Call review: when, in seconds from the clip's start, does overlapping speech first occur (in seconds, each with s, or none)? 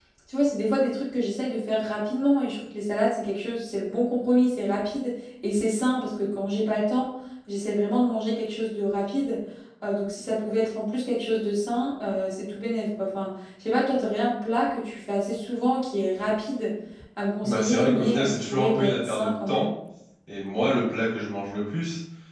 17.4 s